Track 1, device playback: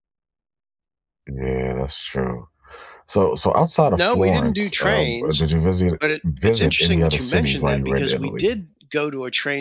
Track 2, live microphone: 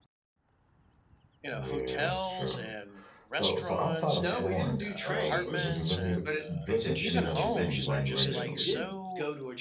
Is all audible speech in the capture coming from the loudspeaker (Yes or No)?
No